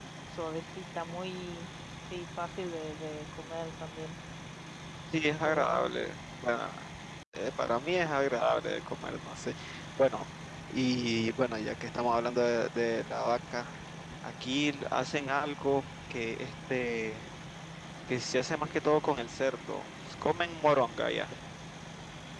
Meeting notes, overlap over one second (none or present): none